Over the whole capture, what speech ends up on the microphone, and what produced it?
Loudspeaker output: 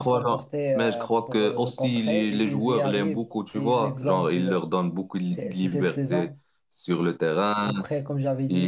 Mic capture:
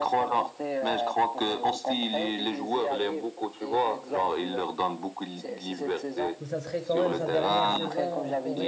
both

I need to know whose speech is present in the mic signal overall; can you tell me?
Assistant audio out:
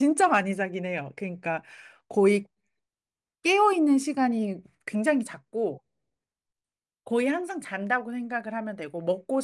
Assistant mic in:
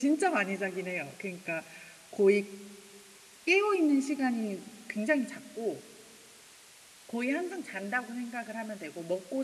echo only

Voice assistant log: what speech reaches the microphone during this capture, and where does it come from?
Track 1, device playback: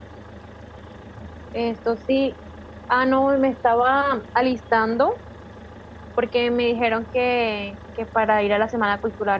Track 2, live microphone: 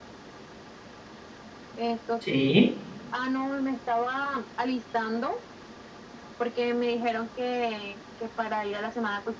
both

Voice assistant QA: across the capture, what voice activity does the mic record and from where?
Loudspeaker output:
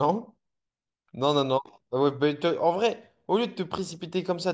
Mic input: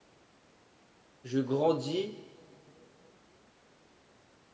user only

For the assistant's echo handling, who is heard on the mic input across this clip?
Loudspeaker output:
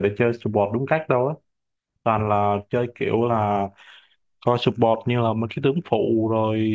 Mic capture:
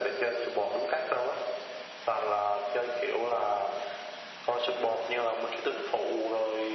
echo only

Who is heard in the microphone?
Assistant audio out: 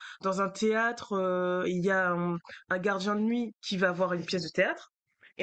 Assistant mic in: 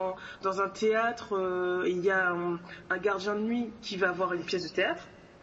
echo only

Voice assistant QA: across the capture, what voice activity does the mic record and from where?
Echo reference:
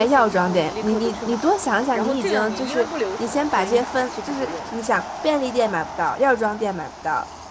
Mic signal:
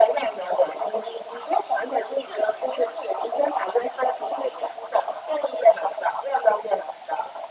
echo only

